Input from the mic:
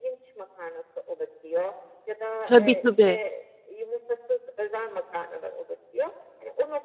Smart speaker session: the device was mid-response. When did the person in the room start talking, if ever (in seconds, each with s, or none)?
2.5 s